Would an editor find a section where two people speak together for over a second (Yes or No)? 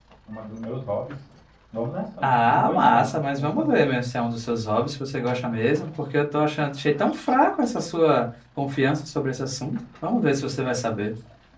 Yes